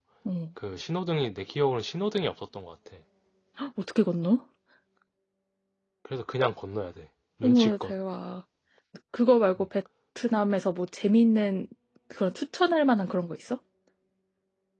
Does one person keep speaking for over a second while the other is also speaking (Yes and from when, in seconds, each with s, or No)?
No